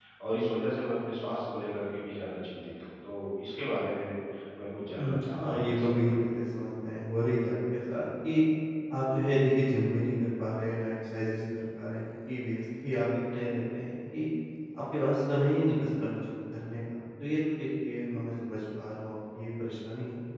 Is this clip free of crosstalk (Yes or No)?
No